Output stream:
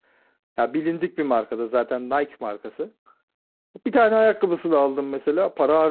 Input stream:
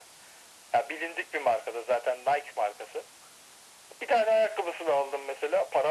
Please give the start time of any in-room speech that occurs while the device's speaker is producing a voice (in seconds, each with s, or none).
none